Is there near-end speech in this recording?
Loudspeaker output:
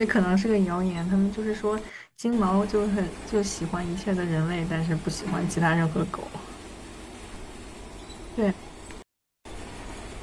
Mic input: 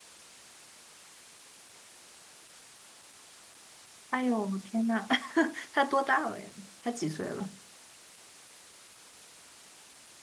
Yes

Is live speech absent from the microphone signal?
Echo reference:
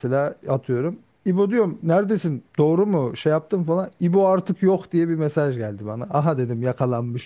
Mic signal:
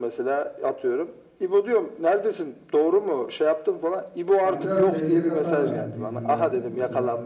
No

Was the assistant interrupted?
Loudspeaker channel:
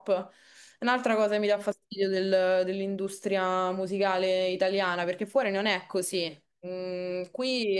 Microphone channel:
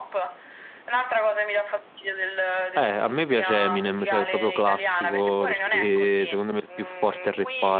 Yes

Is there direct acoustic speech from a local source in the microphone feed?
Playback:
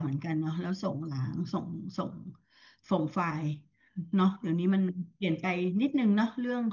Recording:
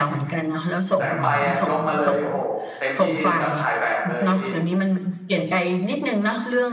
Yes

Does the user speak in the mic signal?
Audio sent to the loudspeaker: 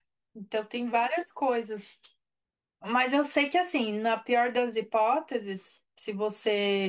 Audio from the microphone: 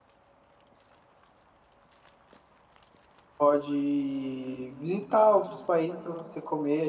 Yes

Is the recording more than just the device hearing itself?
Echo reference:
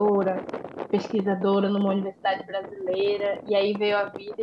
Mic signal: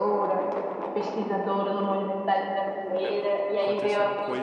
Yes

